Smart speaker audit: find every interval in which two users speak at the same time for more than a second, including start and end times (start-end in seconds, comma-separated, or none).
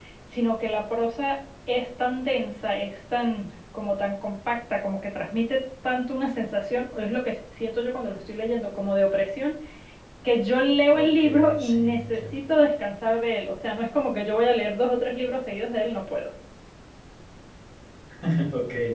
10.9-12.4